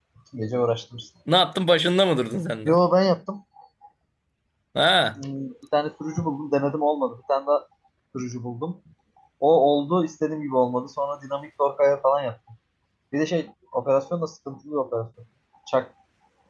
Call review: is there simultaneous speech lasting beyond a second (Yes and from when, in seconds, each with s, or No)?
No